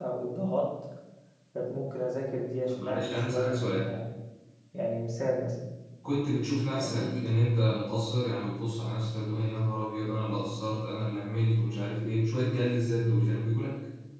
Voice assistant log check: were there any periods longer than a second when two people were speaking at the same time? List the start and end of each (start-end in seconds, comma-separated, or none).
2.7-3.9